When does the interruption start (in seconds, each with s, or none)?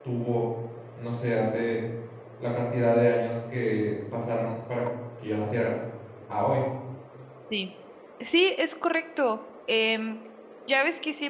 none